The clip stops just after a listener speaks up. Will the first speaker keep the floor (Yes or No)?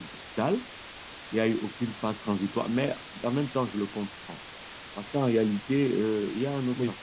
Yes